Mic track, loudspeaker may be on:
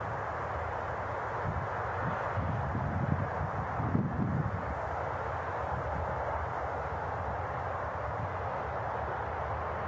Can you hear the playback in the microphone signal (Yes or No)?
No